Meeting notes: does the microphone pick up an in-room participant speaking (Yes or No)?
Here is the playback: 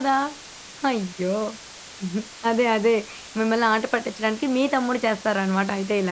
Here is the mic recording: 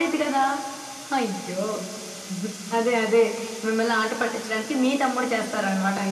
No